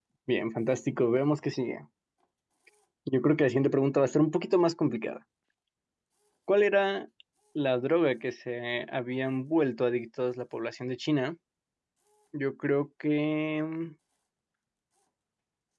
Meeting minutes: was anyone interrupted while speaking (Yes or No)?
No